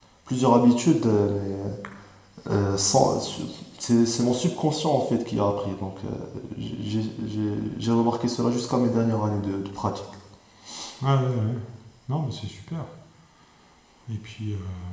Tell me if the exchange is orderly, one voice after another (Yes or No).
Yes